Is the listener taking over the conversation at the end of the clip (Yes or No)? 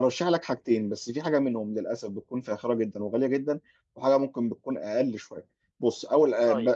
No